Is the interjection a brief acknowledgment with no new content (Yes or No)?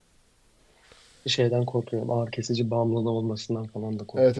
No